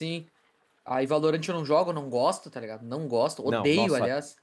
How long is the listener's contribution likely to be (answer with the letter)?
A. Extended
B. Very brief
A